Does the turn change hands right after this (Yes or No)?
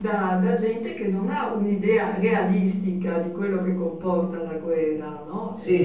Yes